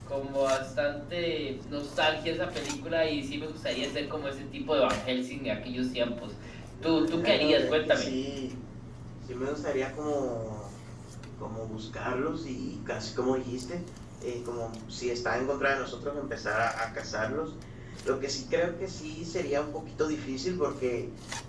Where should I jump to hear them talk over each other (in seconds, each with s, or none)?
6.8 s